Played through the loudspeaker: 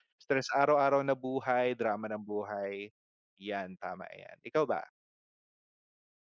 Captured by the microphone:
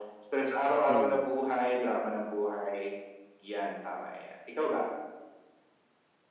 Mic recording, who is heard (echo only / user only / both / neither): both